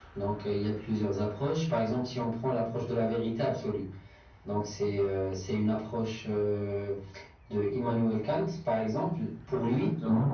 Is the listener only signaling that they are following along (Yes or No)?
Yes